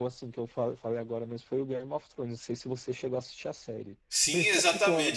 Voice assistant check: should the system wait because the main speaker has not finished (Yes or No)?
No